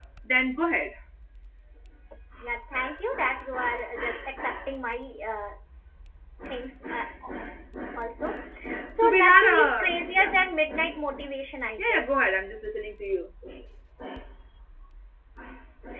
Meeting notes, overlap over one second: present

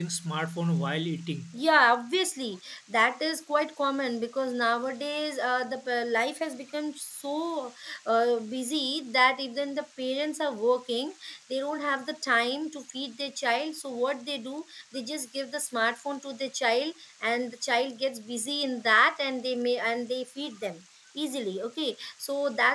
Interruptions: none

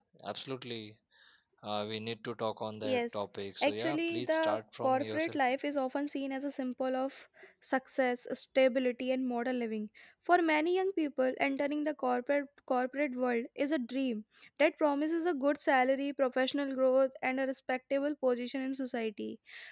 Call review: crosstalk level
present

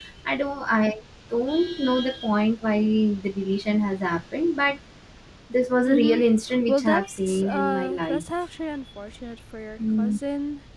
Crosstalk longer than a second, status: present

